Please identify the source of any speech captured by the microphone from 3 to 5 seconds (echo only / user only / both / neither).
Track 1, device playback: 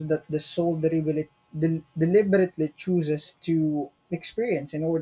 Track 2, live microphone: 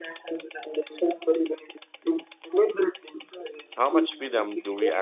both